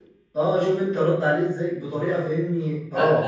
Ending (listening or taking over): taking over